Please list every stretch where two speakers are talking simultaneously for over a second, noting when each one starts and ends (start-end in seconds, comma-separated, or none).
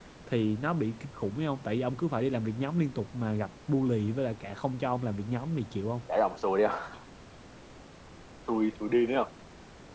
none